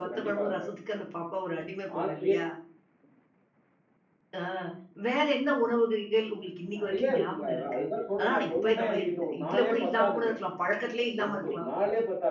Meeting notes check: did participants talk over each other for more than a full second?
Yes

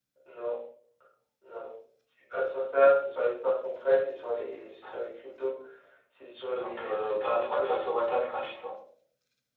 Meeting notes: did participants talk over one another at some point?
Yes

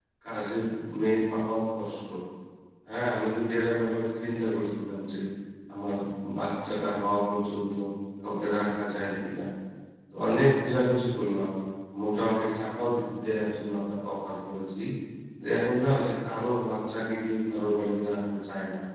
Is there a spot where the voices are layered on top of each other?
No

